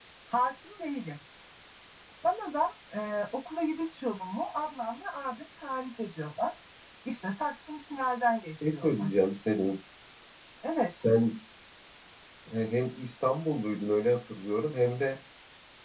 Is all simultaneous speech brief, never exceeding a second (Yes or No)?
Yes